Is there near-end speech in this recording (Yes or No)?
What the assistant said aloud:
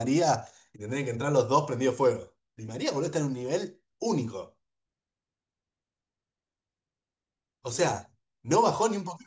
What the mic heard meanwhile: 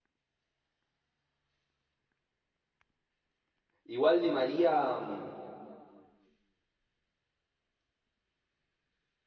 Yes